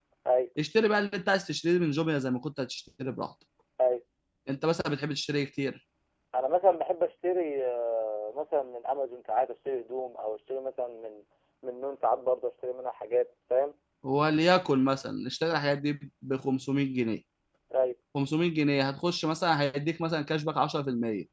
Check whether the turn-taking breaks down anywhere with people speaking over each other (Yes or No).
No